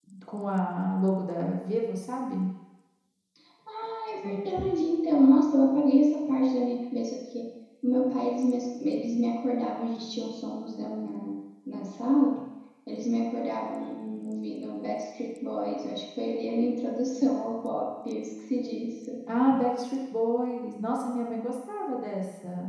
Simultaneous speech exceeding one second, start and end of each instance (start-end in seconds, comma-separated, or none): none